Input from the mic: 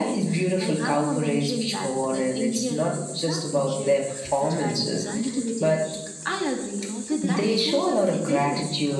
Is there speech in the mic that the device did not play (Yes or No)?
Yes